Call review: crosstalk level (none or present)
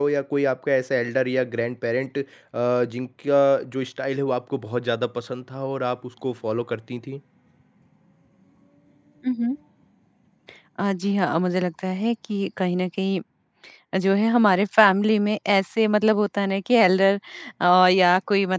none